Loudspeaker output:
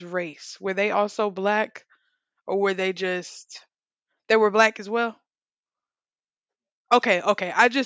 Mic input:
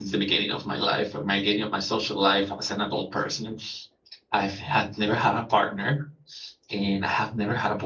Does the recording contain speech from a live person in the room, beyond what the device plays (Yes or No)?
Yes